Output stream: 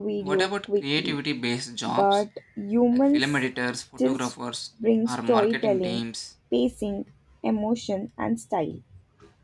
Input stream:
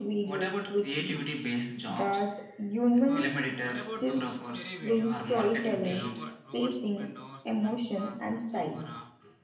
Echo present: Yes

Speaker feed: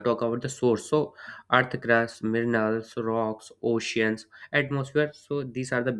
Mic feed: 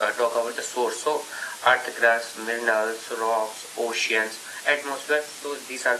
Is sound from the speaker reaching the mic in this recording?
Yes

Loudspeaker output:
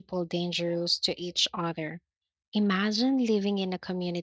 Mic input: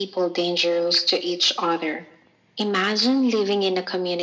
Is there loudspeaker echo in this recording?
Yes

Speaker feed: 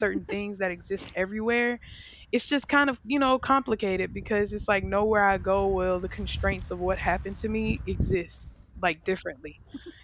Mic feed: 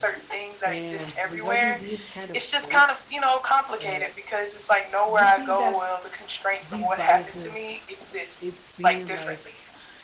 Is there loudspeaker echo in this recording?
Yes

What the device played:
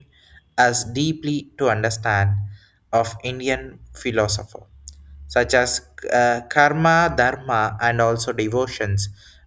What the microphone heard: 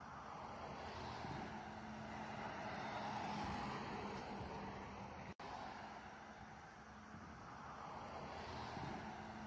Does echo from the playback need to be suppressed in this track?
No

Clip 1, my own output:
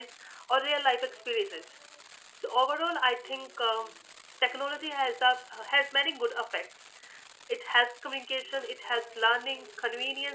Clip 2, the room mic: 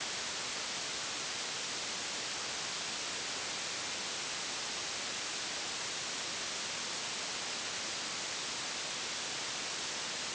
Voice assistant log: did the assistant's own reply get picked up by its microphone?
No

